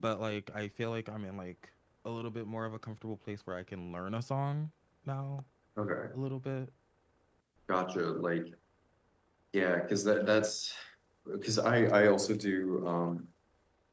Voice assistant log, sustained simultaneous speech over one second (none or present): none